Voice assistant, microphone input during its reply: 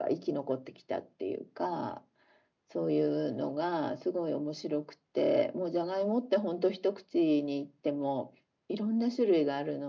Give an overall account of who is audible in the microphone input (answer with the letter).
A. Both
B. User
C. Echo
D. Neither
C